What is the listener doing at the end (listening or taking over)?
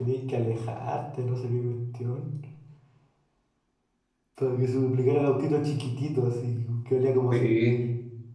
taking over